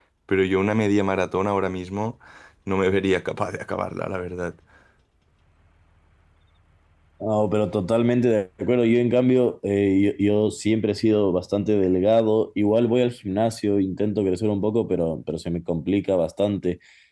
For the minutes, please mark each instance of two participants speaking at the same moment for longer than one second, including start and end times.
none

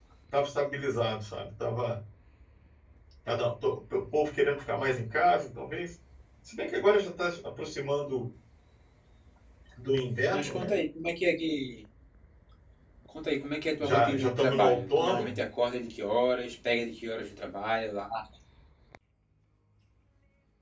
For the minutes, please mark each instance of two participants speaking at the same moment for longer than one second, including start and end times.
13.8-15.4

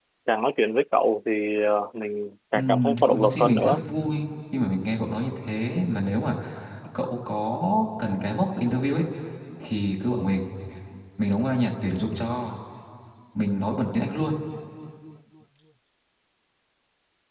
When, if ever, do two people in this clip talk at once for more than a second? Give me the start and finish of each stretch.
2.5-3.8

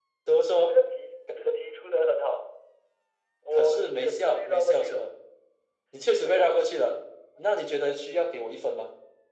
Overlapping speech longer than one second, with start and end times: 3.5-5.1

